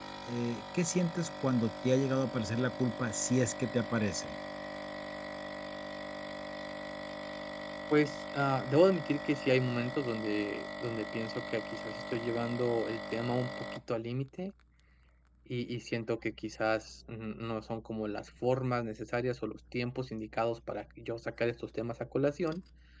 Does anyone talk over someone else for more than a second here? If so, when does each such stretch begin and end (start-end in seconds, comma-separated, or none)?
none